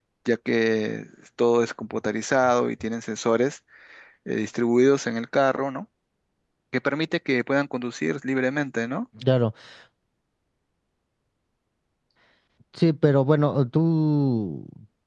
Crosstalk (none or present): none